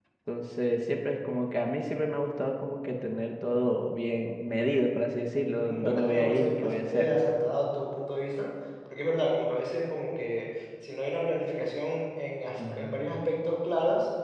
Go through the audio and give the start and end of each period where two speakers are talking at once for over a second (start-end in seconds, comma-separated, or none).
5.6-7.1